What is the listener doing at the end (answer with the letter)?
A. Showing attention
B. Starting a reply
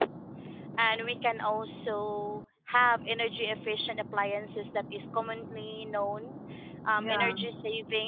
A